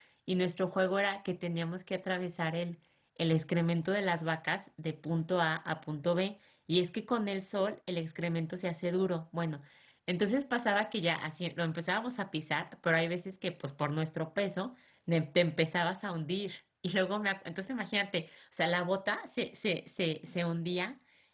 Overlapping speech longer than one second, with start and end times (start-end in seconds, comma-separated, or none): none